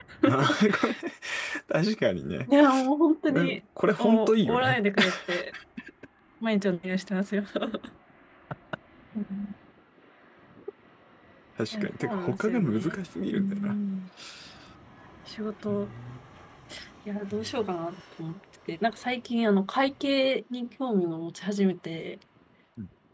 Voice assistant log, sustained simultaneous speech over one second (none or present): present